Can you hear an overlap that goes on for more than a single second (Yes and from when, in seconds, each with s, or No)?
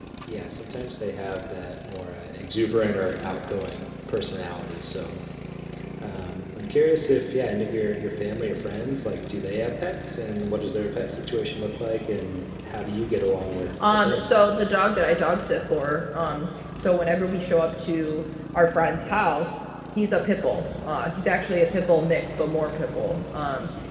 No